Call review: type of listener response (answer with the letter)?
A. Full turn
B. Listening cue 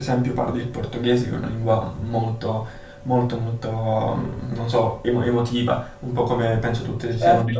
A